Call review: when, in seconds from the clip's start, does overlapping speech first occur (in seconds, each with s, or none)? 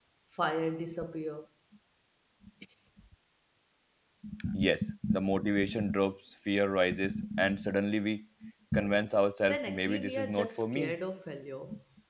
9.4 s